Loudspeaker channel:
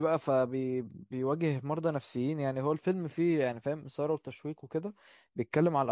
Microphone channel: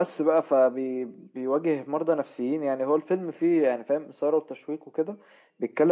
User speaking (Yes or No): No